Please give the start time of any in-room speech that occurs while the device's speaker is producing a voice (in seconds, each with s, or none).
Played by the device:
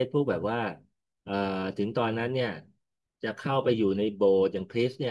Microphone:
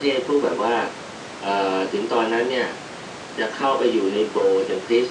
none